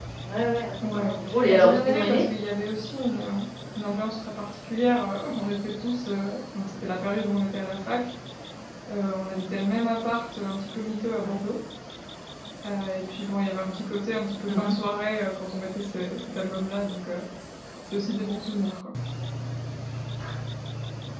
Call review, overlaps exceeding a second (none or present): present